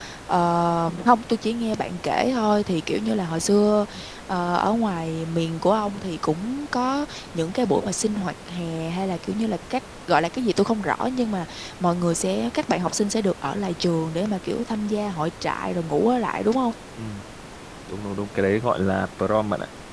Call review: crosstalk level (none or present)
none